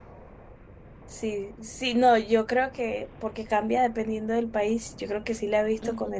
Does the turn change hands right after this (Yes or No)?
No